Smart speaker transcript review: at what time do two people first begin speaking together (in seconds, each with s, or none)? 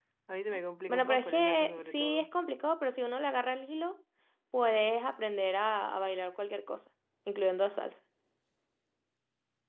0.9 s